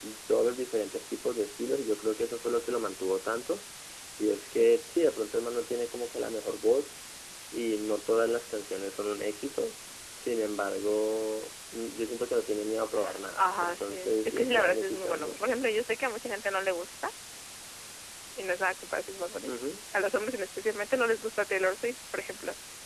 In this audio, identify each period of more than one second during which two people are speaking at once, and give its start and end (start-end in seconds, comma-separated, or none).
13.4-15.5